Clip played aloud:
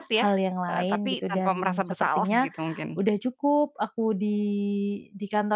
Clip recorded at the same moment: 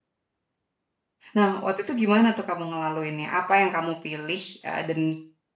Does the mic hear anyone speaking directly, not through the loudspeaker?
Yes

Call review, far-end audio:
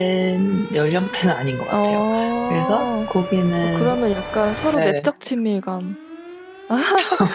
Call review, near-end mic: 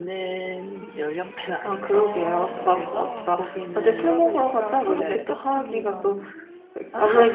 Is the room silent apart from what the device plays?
No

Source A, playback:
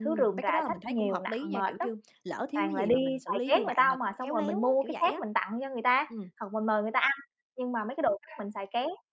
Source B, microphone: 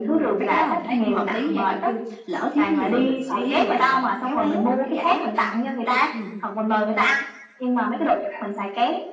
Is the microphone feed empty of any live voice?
Yes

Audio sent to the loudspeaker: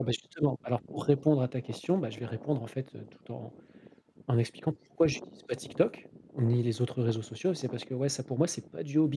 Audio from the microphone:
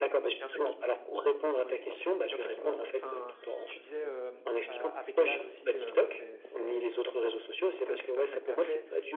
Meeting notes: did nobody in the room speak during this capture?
No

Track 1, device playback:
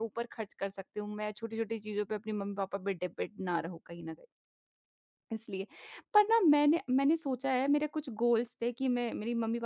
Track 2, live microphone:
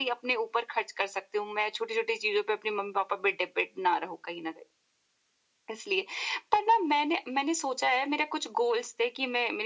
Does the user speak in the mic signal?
No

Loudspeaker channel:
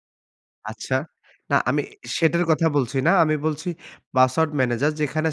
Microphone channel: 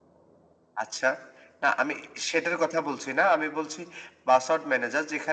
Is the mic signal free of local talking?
Yes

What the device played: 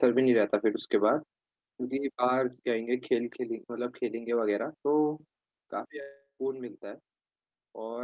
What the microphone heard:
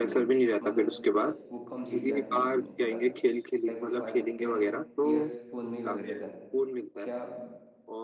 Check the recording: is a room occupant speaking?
Yes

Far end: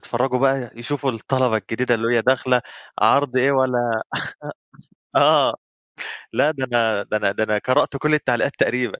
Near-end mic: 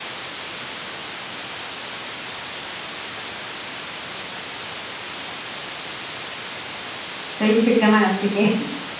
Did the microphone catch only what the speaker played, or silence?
No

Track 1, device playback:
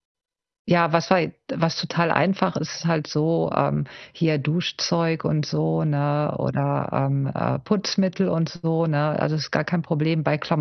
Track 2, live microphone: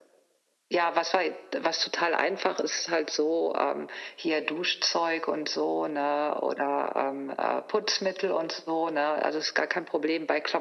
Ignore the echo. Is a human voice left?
No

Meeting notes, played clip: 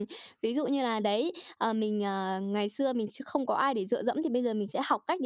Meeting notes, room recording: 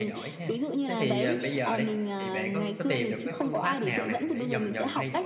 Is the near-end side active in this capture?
Yes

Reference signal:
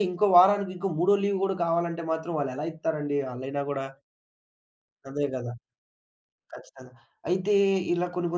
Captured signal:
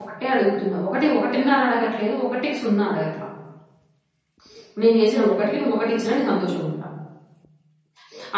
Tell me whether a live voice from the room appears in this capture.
Yes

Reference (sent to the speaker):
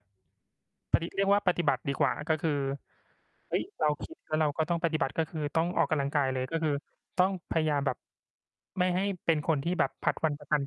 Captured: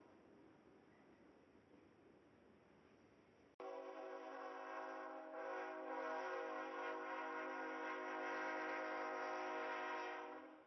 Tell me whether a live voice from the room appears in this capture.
No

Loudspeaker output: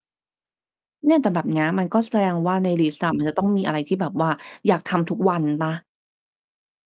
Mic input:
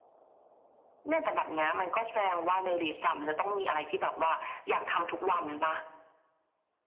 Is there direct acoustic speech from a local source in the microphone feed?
No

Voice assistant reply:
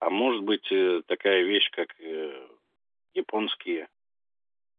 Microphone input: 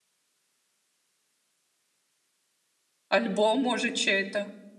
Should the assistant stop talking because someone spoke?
Yes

